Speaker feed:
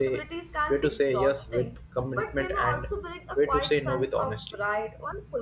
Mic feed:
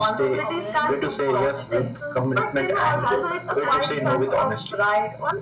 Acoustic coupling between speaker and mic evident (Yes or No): Yes